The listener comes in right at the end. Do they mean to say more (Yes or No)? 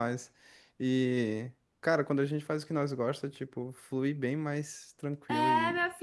Yes